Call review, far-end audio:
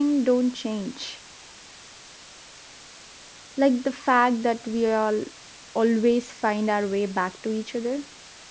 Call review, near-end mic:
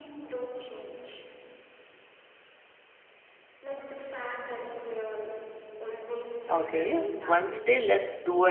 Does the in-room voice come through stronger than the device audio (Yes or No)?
Yes